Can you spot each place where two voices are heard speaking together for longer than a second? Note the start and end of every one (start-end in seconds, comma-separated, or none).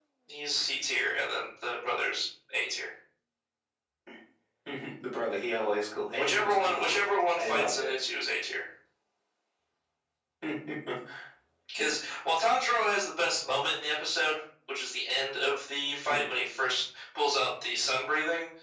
6.2-7.7